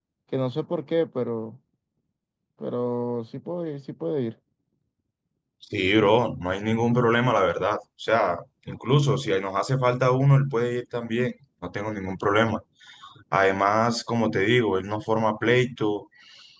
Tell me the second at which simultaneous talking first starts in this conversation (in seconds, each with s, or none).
none